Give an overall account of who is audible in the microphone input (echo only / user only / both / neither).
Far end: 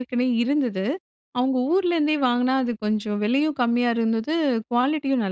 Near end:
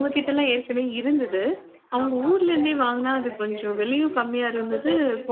both